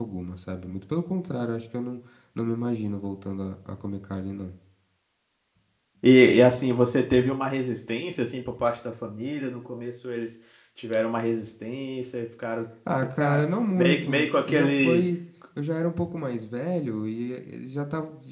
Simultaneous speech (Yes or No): Yes